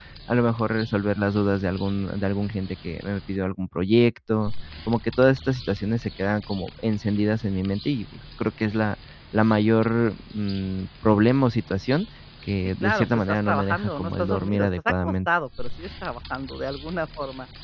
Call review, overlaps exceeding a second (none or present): present